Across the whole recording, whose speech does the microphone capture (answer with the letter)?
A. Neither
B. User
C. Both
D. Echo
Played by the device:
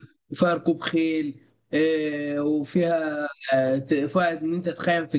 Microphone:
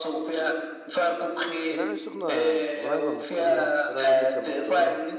C